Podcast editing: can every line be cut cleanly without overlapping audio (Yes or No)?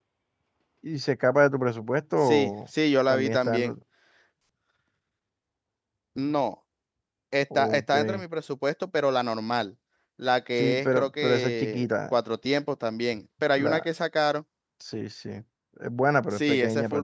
No